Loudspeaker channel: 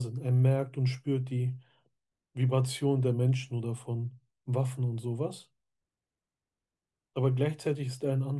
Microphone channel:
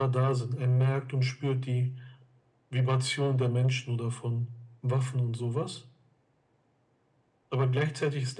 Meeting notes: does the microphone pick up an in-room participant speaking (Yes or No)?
No